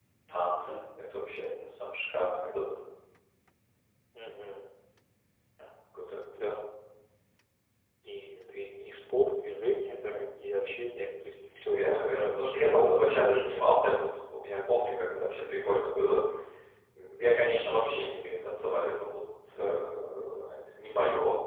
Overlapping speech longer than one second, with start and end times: 11.6-13.6

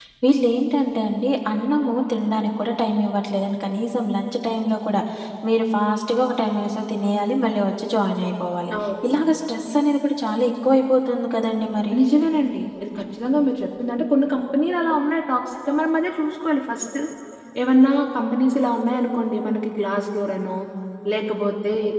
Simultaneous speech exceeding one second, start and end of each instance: none

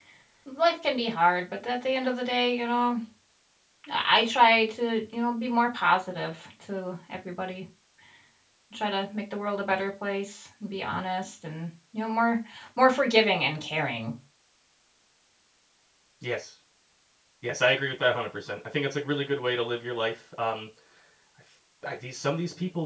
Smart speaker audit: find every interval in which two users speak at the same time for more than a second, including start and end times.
none

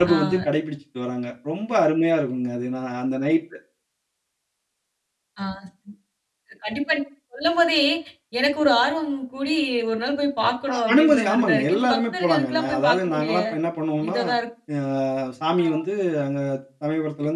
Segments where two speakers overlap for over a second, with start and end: 10.7-13.3

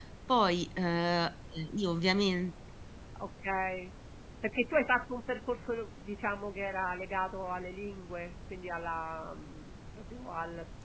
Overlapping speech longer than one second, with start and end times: none

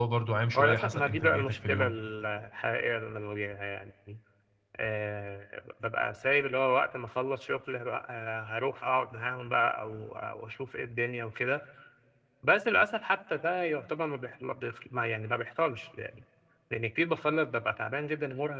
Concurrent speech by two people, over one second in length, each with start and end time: 0.6-1.9

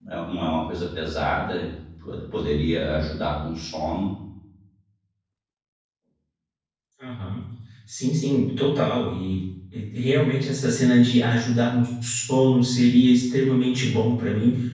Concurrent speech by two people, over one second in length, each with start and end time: none

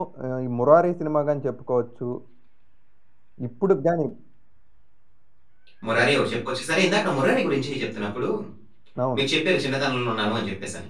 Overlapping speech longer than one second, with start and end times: none

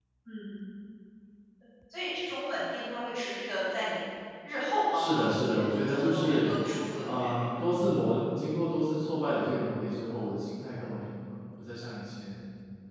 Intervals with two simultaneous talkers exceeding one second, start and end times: 4.9-6.5

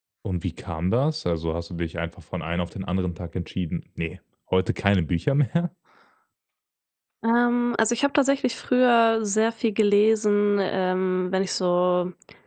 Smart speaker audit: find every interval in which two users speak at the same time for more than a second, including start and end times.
none

